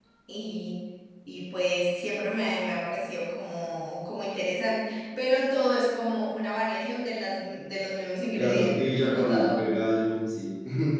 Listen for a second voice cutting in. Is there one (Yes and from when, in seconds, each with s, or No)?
Yes, from 8.4 s